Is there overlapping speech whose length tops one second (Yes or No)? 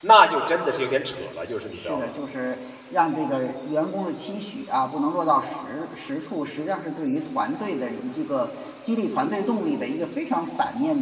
No